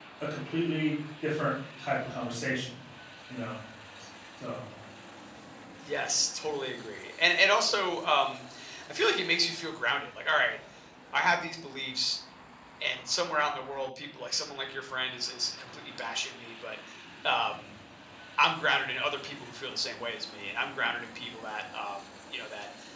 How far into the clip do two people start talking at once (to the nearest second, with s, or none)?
none